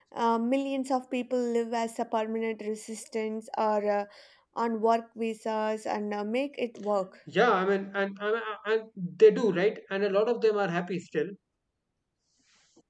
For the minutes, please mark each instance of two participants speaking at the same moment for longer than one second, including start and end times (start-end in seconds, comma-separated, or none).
none